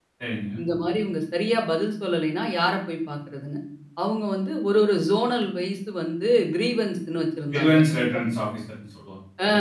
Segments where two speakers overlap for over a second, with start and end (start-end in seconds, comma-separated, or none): none